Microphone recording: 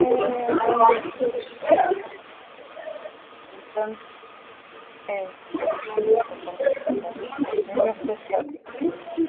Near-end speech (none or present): present